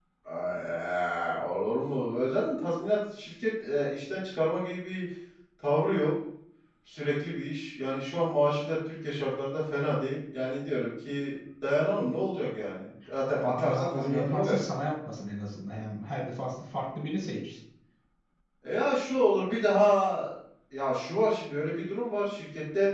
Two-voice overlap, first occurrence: 13 s

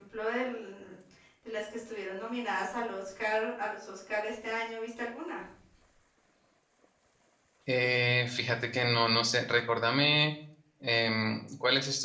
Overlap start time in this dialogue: none

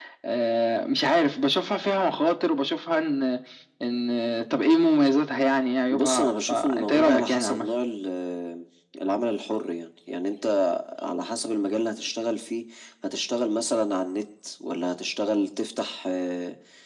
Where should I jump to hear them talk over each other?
6 s

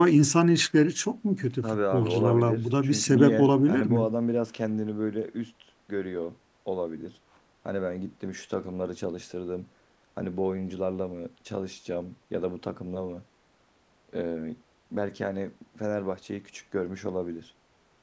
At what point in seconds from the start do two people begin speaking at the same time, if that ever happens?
2 s

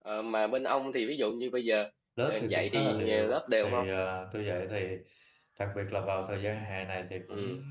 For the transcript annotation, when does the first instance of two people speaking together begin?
2 s

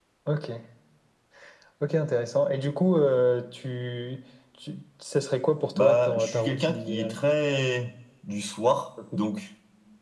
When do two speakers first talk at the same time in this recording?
6 s

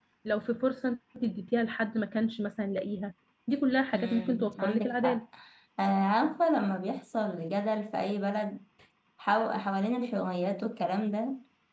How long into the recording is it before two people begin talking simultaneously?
4 s

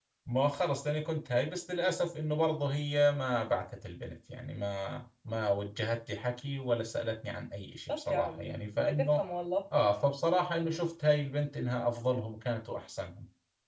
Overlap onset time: 8 s

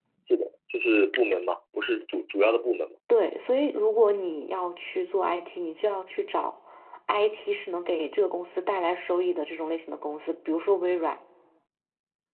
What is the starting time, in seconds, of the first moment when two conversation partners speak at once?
none

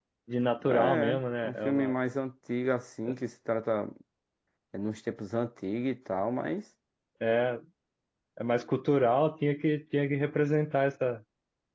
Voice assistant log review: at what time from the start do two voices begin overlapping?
1 s

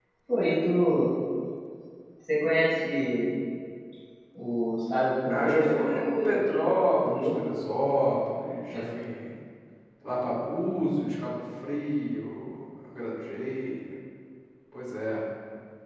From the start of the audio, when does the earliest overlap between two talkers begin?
5 s

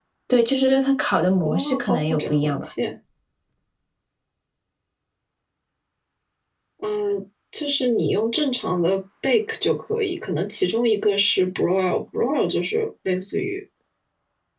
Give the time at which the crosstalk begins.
1 s

